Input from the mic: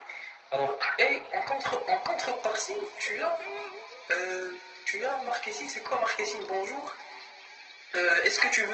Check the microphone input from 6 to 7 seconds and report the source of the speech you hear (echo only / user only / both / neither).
echo only